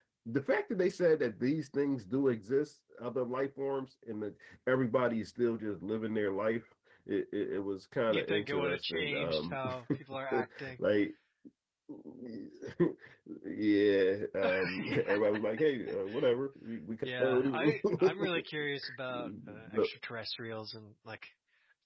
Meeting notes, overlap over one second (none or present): present